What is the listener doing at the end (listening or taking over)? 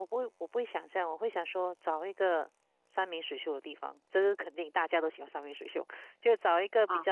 listening